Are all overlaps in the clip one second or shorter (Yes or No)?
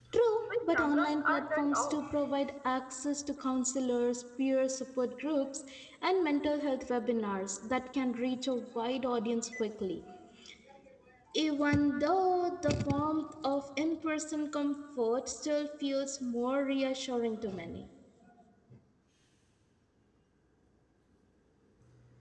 No